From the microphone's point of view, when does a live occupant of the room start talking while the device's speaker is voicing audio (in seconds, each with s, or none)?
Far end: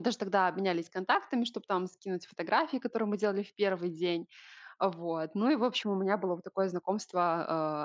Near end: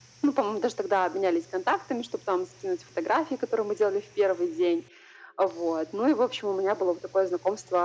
none